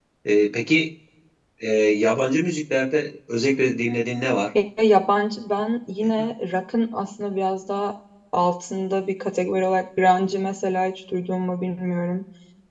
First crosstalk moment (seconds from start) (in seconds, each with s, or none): none